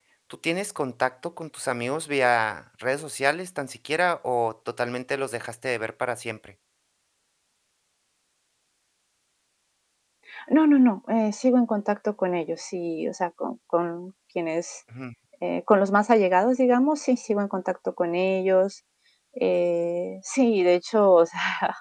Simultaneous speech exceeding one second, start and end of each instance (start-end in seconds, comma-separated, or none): none